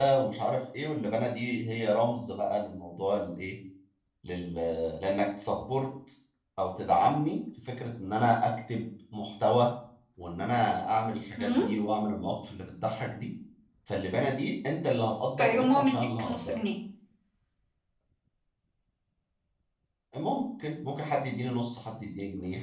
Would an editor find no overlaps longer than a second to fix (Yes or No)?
No